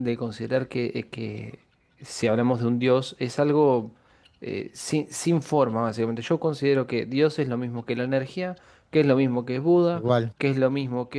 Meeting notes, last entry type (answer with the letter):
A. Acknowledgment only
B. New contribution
A